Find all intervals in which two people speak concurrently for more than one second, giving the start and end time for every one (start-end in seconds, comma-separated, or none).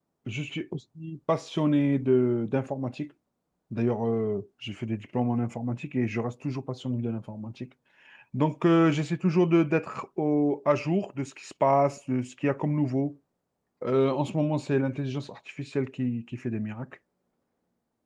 none